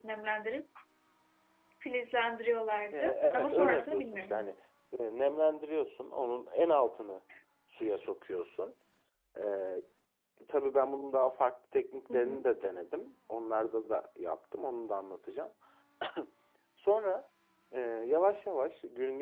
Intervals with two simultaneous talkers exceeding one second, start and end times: 2.9-4.5

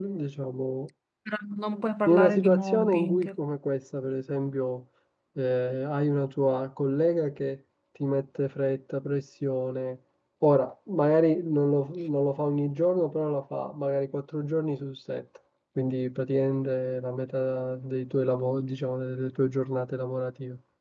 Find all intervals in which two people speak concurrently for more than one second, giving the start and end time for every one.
2.1-3.3

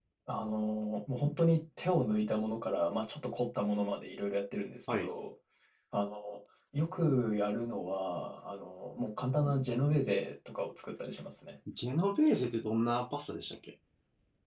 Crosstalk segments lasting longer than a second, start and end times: none

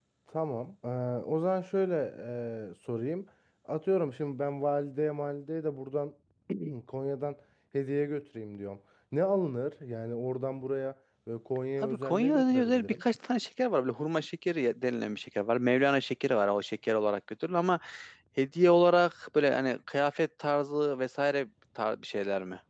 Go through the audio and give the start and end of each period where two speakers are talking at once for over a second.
11.8-13.0

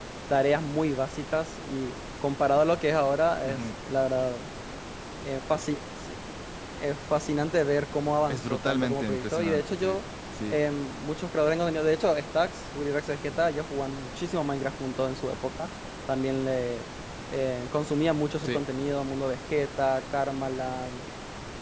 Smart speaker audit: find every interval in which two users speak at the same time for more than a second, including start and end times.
8.3-10.0

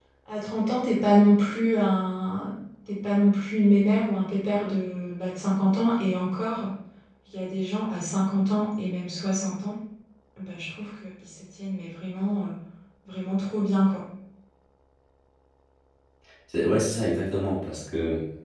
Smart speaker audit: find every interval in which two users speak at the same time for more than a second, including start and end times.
none

